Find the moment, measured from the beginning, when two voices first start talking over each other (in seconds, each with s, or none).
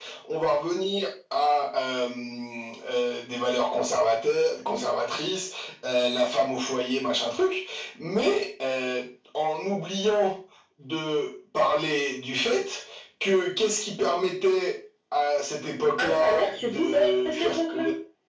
16.0 s